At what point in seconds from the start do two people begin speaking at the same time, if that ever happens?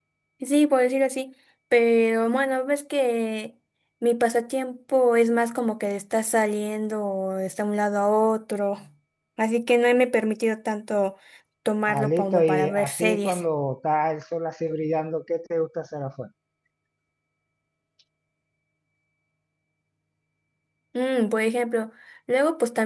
11.9 s

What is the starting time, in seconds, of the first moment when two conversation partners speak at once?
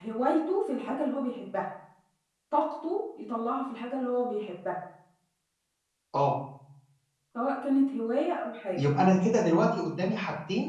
none

